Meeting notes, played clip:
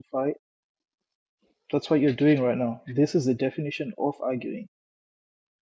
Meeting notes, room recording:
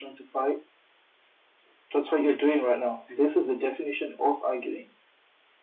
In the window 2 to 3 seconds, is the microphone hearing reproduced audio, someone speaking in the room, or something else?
echo only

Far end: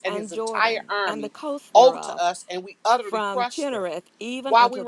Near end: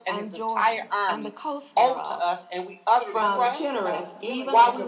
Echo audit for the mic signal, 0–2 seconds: echo only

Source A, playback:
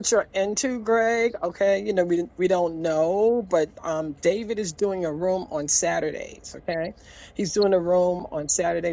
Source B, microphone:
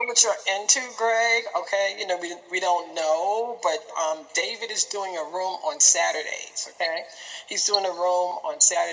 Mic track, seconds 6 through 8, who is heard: echo only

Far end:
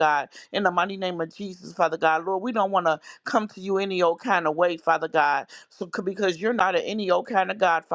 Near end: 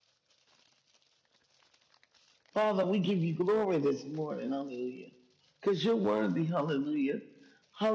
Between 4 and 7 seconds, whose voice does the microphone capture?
user only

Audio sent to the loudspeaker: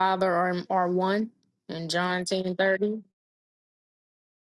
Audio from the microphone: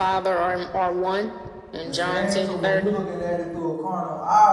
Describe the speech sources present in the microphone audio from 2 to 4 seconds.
both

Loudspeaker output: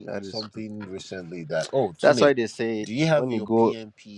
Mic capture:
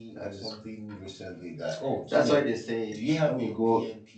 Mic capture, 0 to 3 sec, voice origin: echo only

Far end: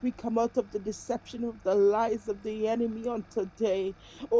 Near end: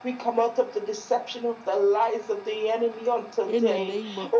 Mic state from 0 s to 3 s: echo only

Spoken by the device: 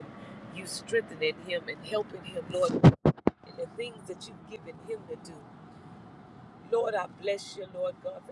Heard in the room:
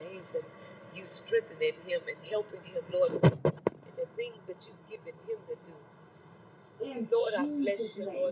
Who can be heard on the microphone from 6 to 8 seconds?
both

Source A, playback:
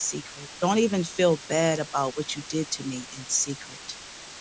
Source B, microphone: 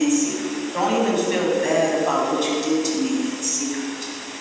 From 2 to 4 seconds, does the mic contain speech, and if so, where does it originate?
echo only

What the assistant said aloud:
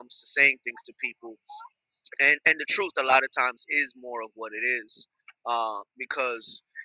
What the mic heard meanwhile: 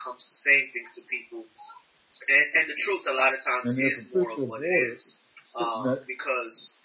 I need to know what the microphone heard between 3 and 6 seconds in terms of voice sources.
both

